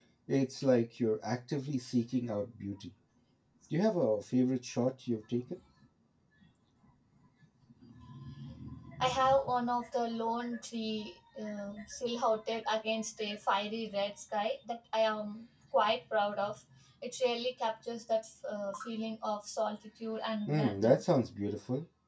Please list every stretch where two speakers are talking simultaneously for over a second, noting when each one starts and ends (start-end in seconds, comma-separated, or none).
none